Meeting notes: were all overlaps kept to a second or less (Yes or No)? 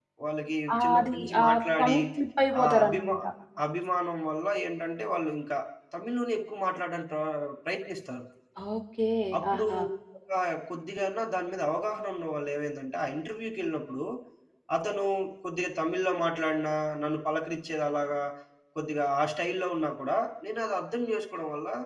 No